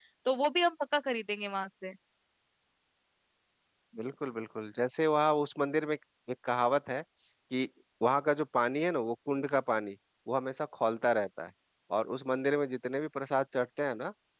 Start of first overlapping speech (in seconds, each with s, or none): none